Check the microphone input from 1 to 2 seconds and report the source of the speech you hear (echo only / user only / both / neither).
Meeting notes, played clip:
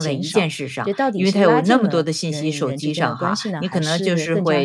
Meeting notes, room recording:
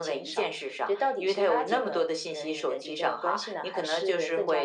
echo only